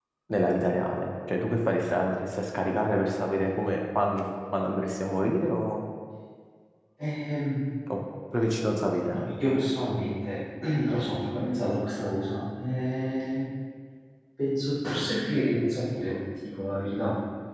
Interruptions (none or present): none